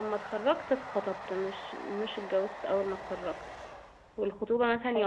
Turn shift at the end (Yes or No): No